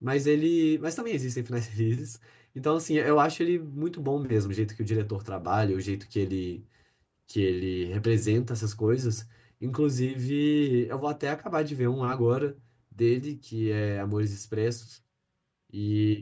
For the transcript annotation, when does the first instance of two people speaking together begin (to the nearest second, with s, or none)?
none